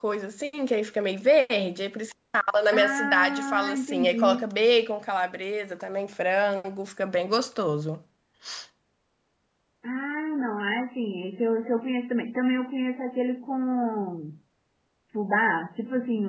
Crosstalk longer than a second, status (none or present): present